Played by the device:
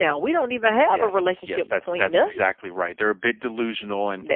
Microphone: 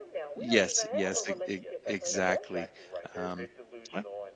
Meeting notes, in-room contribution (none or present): present